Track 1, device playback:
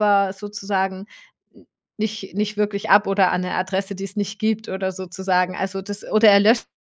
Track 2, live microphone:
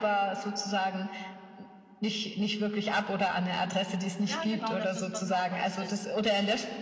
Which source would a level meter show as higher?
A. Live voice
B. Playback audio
B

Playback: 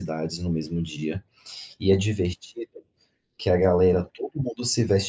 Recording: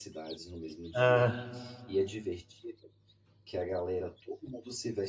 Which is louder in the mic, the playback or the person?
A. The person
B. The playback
A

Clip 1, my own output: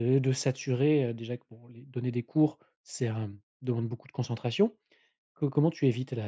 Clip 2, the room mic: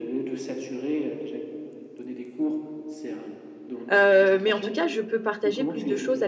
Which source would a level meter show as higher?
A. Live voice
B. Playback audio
A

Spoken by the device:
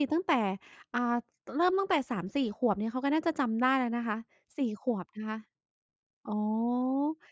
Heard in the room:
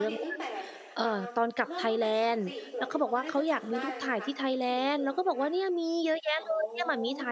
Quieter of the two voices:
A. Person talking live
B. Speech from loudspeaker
B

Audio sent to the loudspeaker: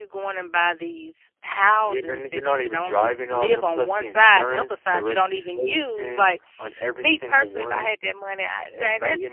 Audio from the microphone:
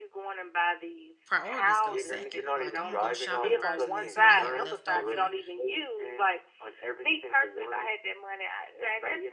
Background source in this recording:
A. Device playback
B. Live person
B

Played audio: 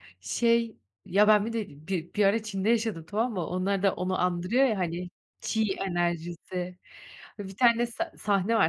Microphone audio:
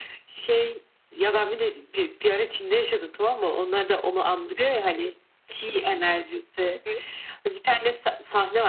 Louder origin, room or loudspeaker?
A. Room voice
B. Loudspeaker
B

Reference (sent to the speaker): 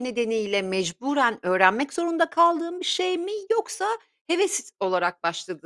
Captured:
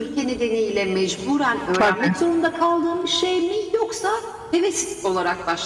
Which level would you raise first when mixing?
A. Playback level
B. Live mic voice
A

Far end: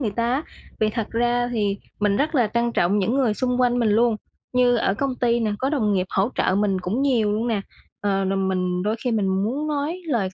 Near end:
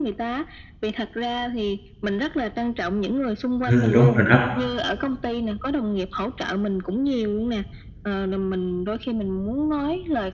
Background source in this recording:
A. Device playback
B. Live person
A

